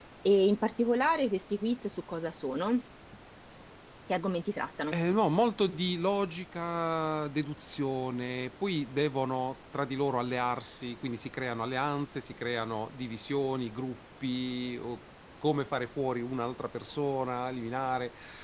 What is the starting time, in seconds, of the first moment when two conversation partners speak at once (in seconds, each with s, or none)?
none